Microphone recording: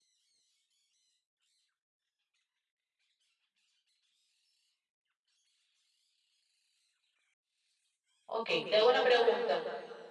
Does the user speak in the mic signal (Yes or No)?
Yes